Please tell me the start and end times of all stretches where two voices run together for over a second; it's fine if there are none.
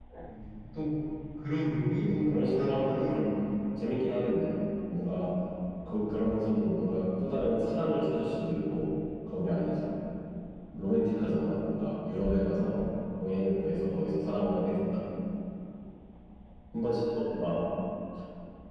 1.8-3.2

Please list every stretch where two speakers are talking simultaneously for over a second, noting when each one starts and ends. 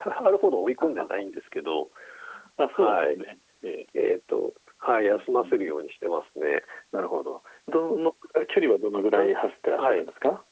none

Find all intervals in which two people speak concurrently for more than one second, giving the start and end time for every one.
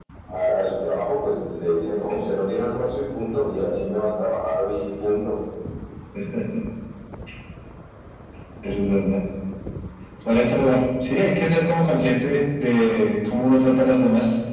none

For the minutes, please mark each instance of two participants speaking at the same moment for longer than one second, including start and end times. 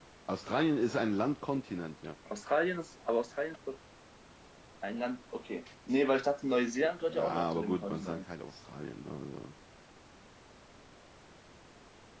7.0-8.2

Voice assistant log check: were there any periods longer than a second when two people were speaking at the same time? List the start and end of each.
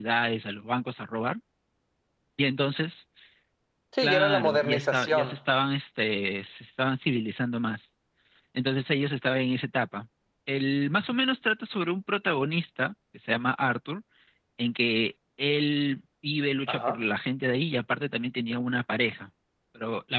4.0-5.4

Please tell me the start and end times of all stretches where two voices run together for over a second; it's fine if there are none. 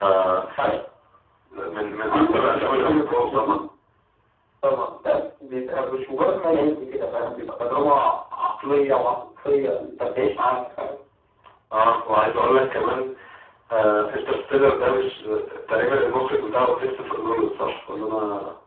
2.1-3.6

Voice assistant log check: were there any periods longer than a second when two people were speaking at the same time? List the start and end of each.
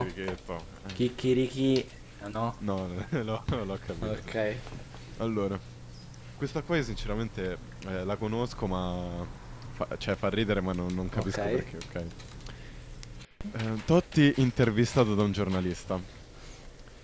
none

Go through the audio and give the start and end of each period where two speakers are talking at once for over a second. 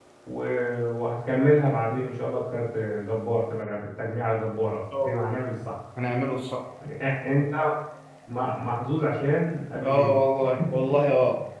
none

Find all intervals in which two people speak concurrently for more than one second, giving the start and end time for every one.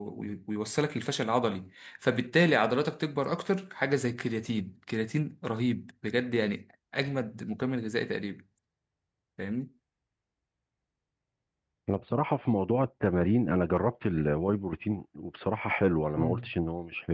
none

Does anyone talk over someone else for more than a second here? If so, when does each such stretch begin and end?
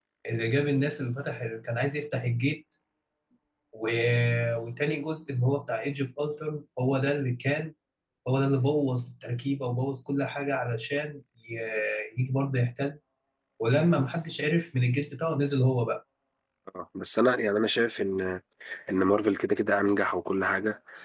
none

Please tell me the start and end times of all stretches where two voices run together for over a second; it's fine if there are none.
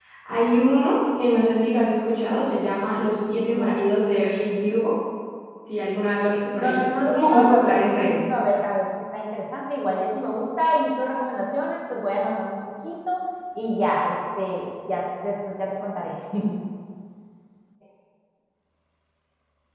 6.6-8.1

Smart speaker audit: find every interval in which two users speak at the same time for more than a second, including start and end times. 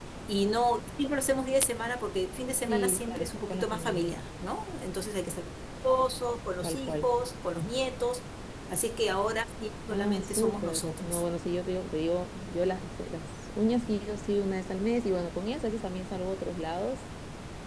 2.7-4.2, 9.9-11.2

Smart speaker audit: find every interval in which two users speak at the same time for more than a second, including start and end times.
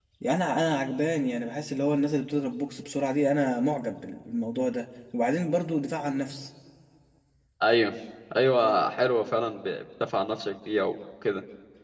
none

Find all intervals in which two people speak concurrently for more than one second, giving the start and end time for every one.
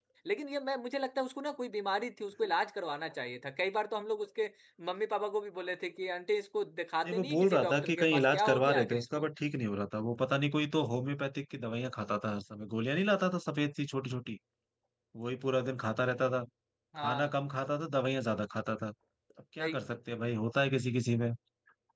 7.0-9.2

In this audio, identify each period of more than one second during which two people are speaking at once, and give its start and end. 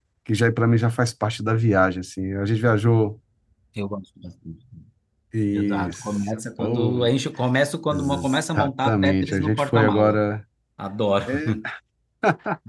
7.9-10.2

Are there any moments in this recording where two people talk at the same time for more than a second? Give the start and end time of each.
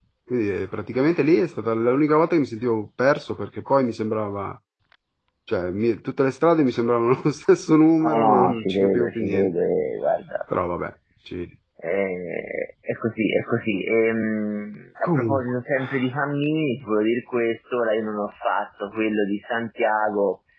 8.0-9.5

